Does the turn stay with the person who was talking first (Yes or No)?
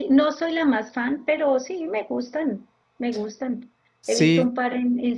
Yes